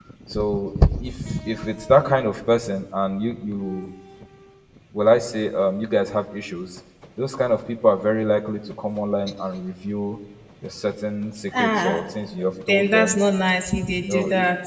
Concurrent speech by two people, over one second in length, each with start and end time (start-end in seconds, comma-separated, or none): none